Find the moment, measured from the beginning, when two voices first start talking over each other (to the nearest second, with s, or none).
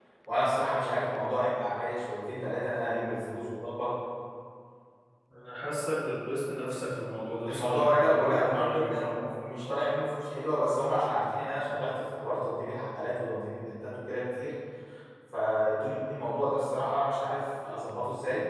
7 s